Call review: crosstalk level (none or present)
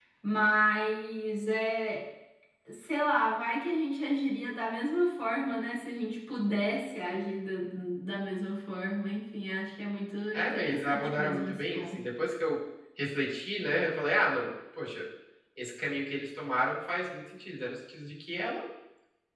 present